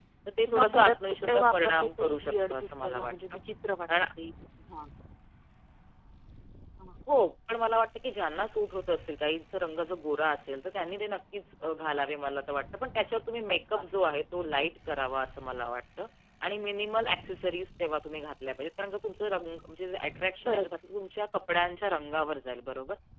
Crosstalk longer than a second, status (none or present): present